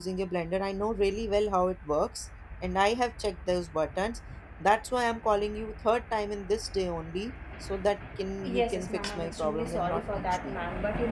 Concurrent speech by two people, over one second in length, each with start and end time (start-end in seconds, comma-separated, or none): 8.4-10.6